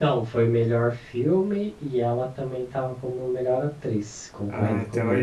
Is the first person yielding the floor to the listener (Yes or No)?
Yes